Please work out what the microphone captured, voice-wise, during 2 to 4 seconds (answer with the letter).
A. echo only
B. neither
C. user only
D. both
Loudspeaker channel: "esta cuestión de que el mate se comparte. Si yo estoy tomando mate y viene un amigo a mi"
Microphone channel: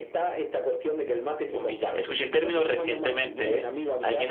D